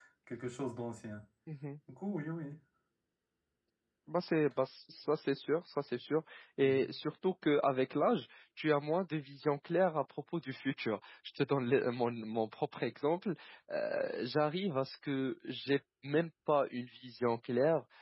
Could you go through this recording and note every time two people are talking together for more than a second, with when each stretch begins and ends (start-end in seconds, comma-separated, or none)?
none